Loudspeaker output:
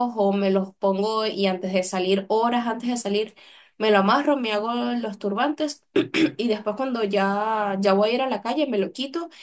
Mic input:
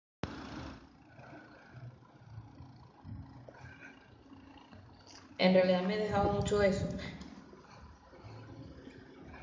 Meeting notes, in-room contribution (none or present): present